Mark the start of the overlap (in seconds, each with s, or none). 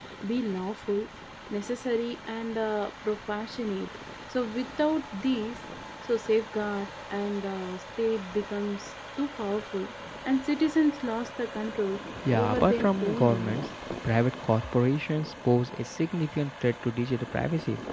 12.2 s